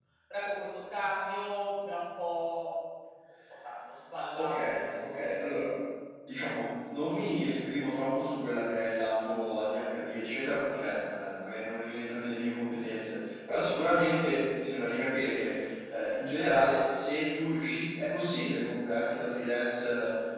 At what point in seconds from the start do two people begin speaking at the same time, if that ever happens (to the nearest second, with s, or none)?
4 s